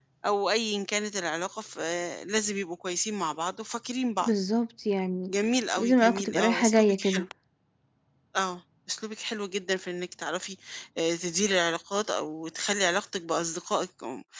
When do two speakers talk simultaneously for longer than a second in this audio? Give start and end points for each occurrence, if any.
5.8-7.2

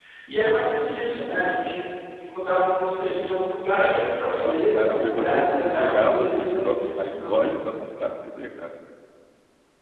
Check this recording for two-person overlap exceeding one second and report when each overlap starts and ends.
4.0-6.7

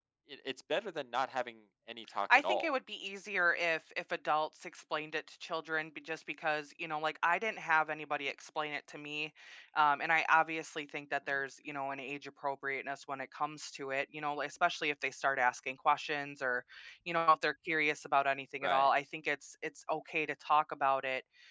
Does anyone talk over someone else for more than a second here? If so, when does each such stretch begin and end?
none

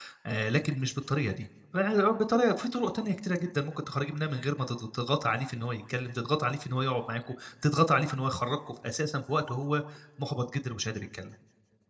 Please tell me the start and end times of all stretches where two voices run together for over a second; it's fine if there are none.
none

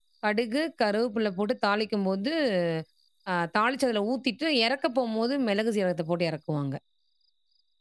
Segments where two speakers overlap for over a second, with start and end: none

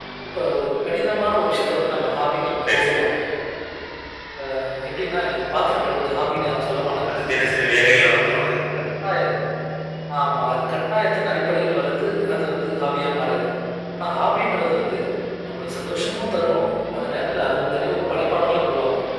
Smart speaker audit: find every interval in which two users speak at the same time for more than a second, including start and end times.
none

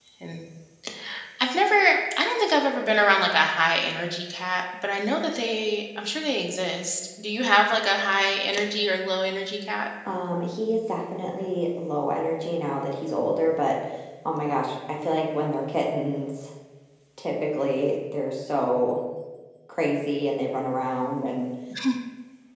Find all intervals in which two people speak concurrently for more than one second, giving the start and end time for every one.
none

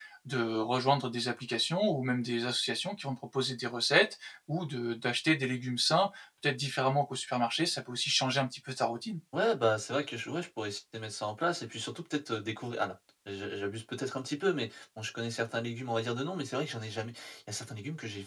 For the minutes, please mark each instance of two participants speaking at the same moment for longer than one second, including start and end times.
none

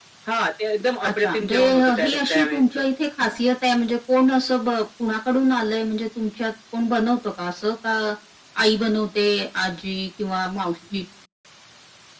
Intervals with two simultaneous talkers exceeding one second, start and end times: 1.0-2.6

